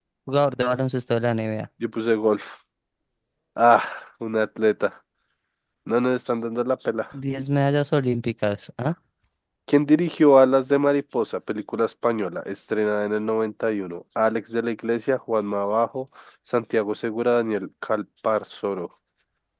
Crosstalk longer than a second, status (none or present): none